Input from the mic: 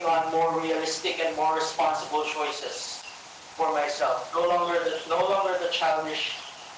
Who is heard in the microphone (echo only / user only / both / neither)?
echo only